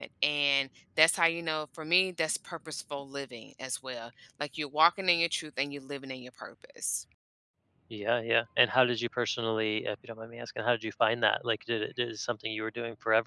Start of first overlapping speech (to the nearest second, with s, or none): none